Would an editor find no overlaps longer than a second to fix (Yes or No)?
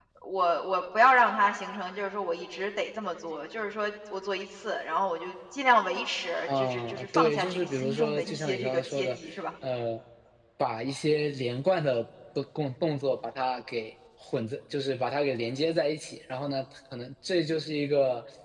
No